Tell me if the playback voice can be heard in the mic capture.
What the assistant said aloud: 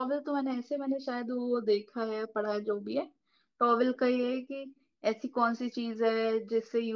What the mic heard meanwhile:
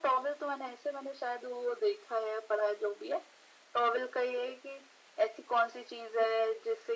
Yes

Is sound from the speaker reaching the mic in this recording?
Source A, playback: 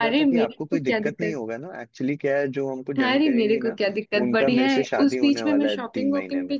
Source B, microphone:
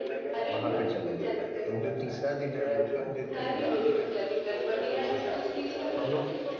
Yes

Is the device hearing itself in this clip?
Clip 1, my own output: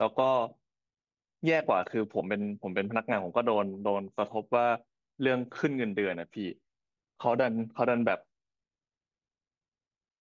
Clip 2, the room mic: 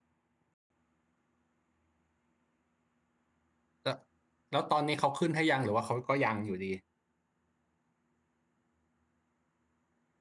No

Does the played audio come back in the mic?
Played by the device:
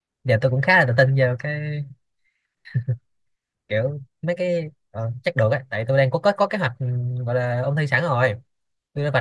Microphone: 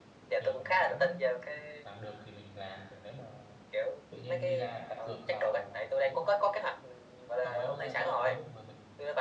Yes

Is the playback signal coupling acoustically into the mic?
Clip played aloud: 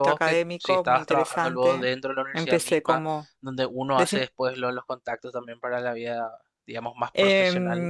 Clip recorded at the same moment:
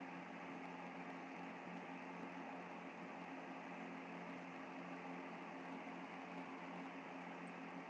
No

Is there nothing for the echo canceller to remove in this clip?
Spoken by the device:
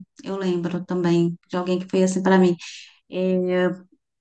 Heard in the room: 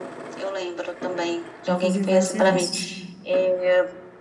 No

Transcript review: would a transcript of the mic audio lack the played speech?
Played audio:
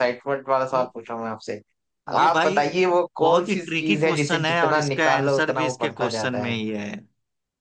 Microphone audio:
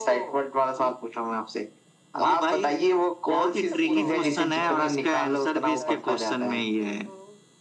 No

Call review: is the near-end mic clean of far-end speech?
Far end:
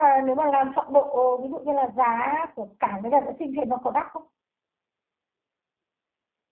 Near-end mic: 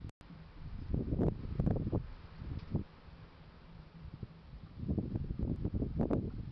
Yes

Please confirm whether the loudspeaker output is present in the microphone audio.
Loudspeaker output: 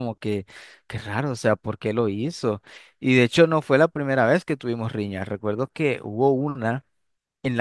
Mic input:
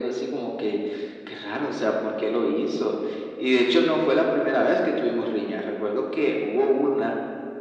Yes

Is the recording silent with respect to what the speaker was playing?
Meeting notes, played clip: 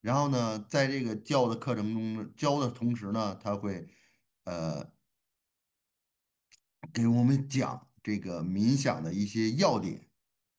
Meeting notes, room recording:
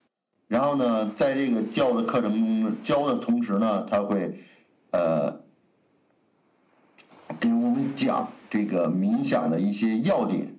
No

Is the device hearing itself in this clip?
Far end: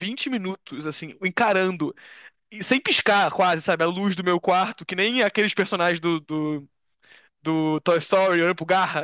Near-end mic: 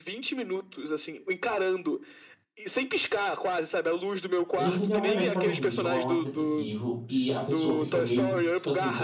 Yes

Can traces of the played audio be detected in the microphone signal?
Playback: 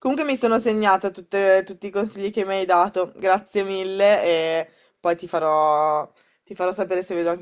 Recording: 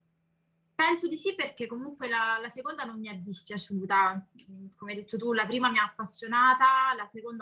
No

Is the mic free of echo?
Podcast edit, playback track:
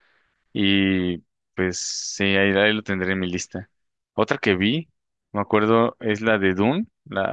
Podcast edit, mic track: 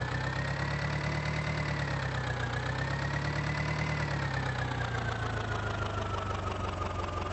Yes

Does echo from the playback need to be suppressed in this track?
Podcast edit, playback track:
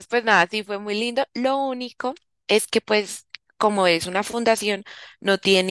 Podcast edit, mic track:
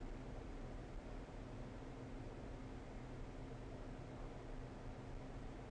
No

